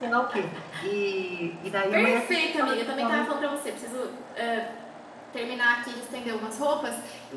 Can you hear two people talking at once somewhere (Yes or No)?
Yes